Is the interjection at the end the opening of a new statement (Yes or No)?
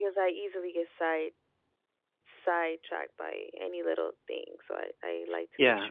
Yes